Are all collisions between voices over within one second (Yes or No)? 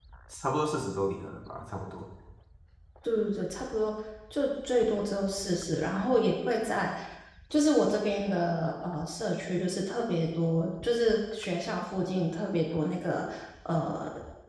Yes